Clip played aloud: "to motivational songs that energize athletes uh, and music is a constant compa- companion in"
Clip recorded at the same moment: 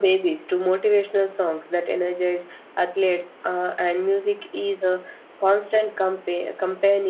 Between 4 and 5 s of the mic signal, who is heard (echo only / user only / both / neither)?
echo only